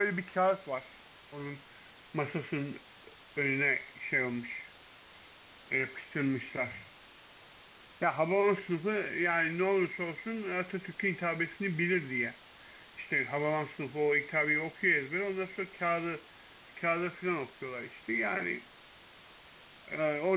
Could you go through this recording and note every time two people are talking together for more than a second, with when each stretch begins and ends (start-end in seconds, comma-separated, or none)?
none